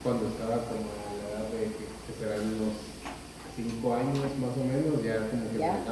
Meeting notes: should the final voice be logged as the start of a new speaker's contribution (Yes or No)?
No